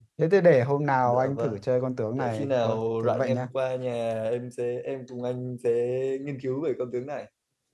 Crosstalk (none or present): present